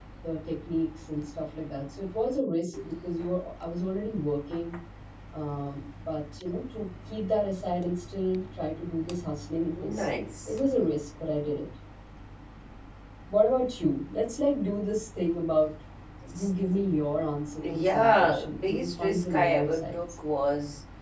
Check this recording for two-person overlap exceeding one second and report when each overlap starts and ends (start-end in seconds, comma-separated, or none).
17.9-20.0